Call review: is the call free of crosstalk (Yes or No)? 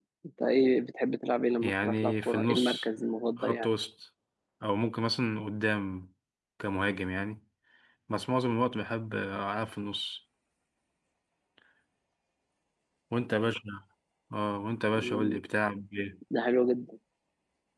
No